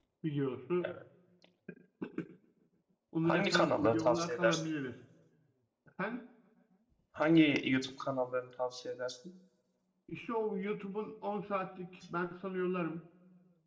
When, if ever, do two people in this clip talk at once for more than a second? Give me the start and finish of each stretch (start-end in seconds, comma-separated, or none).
3.2-4.6